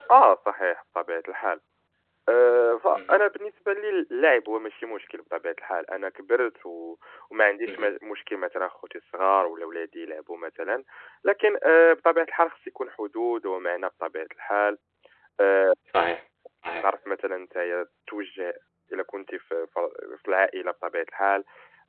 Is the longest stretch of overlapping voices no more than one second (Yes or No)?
Yes